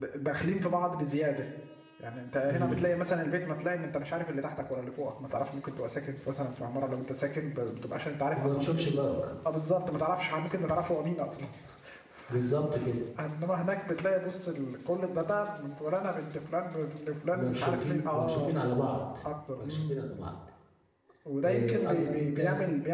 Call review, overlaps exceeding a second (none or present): present